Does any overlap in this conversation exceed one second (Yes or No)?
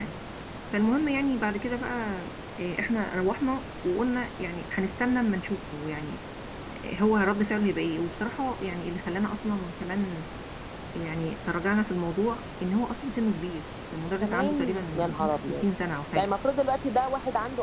Yes